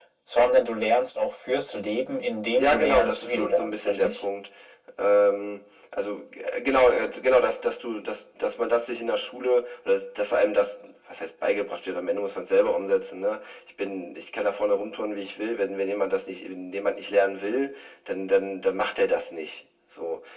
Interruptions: present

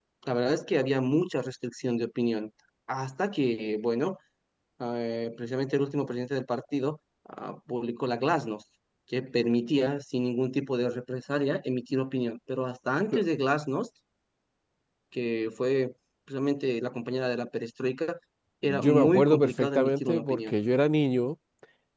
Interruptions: present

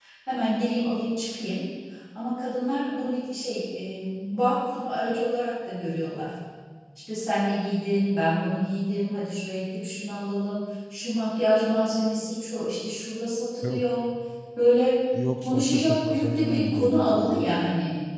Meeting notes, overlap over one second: present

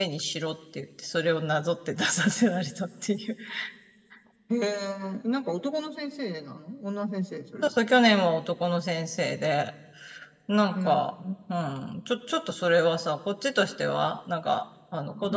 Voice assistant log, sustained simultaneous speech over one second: none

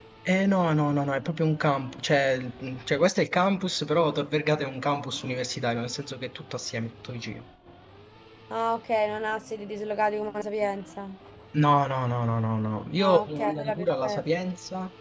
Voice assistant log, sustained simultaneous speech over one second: present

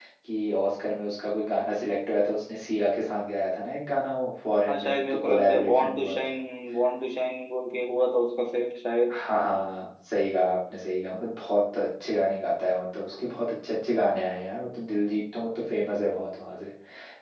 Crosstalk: present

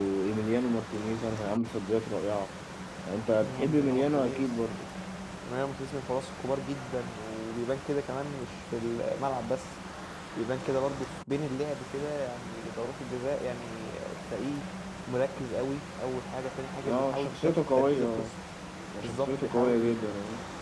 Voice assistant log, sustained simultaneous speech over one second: present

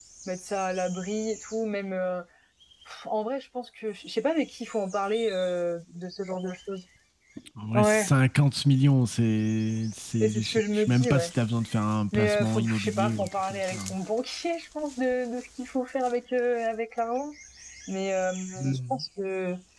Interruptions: present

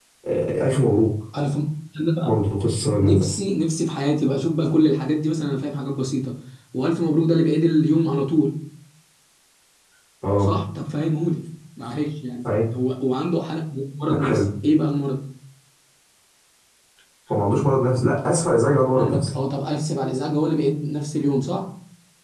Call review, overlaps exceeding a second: none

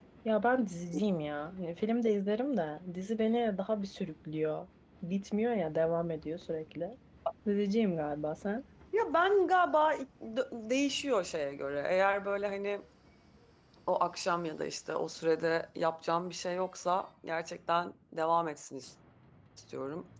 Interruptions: none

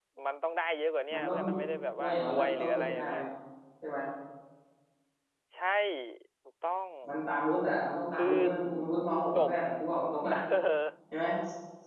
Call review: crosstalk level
present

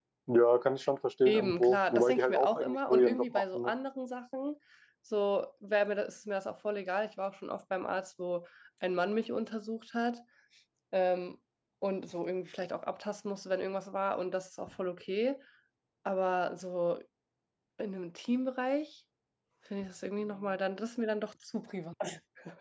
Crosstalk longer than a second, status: present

